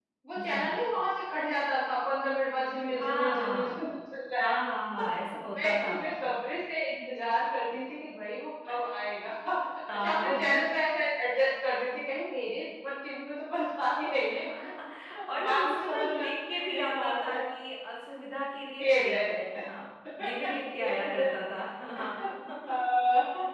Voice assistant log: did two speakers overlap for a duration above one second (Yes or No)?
Yes